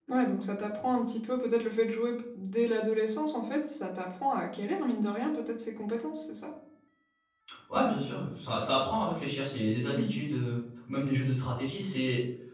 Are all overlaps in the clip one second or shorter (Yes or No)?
Yes